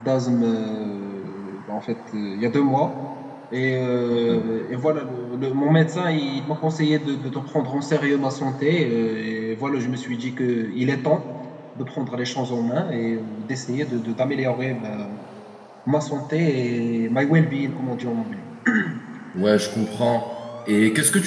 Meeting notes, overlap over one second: none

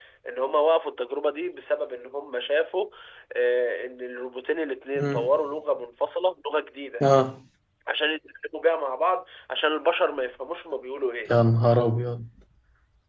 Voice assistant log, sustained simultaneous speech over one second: none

